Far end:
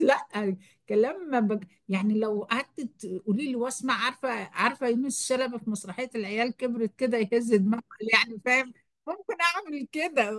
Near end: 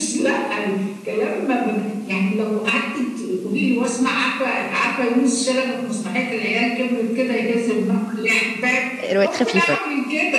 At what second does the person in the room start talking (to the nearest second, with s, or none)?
9 s